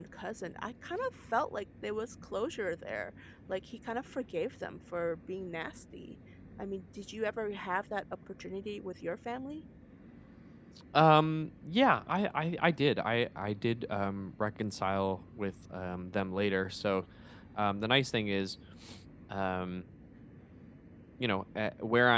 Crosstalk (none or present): none